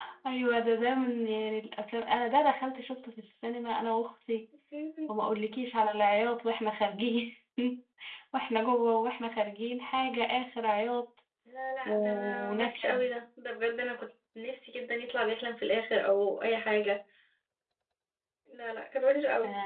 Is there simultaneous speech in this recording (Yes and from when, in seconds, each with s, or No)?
Yes, from 11.8 s